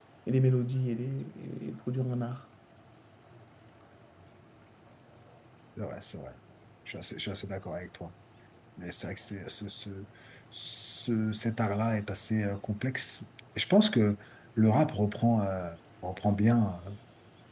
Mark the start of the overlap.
none

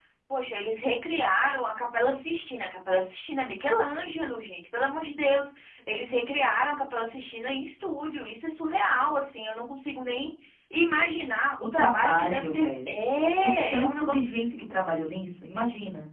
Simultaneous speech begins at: 12 s

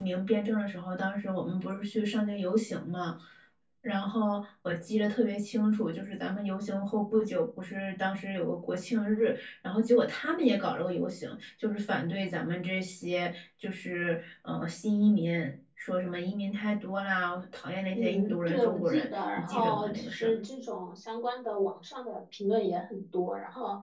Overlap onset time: 18 s

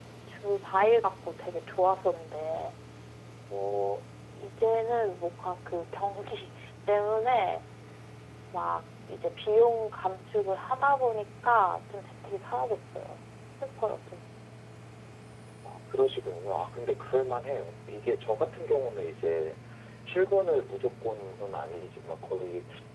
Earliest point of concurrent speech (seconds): none

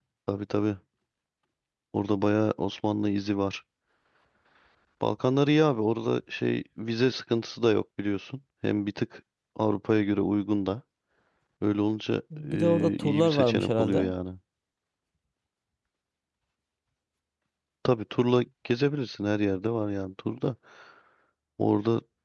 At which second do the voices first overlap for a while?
12 s

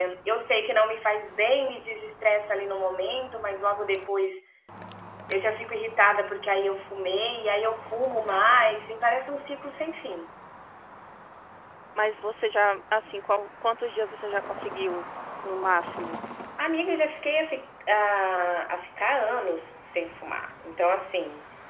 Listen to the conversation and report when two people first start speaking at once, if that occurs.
none

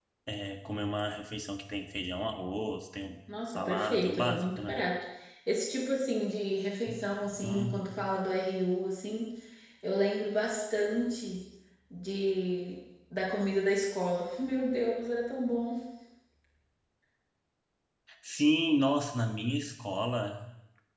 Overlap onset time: 4 s

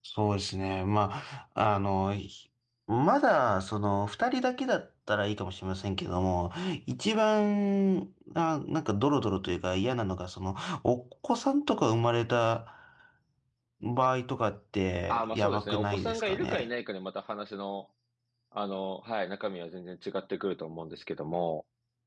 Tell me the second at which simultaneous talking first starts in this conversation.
15 s

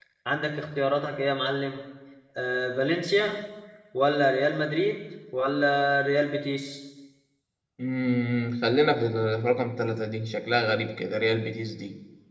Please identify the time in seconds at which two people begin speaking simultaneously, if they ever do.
none

